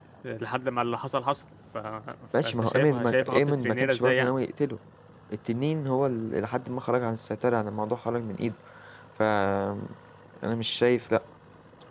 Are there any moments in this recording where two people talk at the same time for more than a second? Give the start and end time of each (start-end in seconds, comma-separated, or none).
2.4-4.3